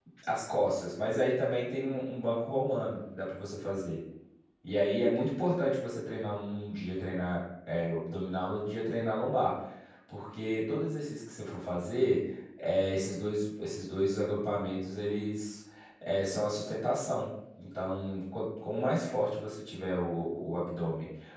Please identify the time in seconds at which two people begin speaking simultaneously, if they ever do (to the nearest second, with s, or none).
none